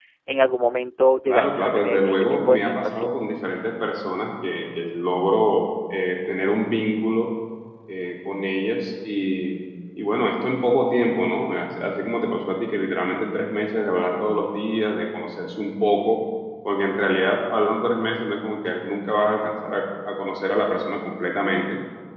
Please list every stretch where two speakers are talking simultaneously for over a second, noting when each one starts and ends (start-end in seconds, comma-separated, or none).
1.3-3.1